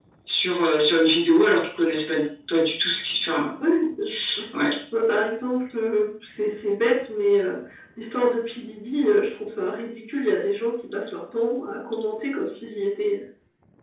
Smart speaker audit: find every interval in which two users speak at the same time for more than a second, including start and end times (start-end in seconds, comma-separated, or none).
none